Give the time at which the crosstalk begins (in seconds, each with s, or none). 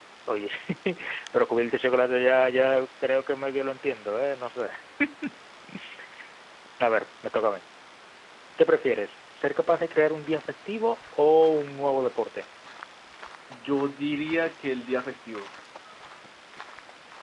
none